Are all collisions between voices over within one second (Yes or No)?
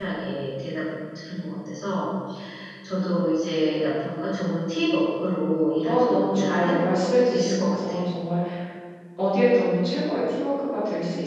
No